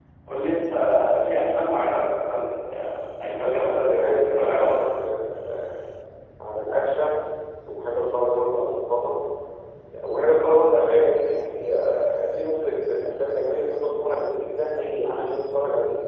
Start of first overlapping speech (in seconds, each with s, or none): 3.4 s